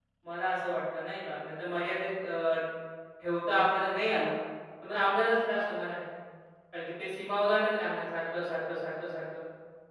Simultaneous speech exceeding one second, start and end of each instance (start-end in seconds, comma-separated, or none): none